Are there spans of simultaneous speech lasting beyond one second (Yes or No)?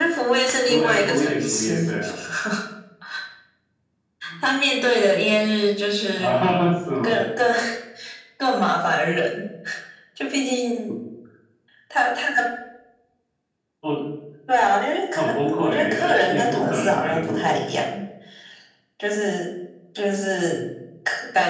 Yes